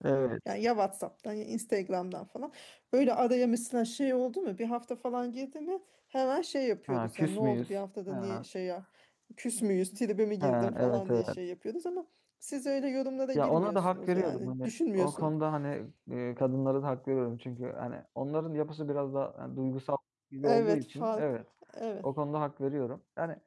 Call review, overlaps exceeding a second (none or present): present